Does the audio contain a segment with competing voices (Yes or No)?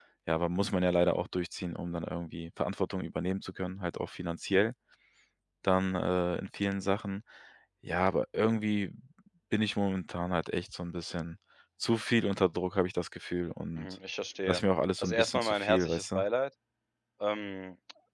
Yes